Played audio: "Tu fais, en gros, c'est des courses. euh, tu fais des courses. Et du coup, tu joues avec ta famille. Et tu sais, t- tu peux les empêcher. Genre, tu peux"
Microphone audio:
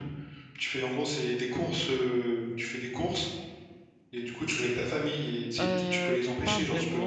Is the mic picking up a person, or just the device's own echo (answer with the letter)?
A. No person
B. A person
B